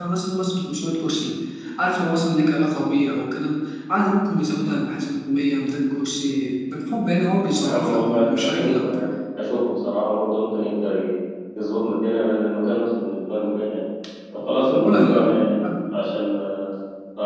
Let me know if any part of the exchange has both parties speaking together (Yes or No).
Yes